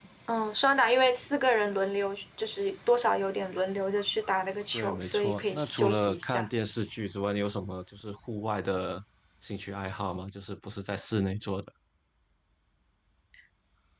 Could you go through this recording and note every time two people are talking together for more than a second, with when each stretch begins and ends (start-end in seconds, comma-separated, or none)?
4.7-6.5